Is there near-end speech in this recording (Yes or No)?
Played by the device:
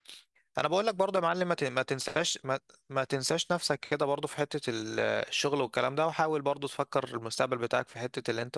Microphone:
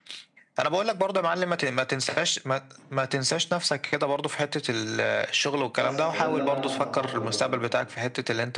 Yes